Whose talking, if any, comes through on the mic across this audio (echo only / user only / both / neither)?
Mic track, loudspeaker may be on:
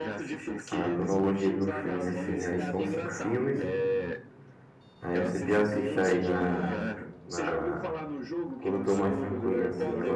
both